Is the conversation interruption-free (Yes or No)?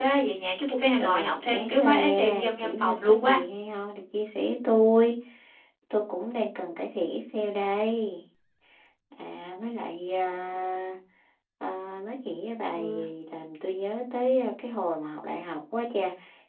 No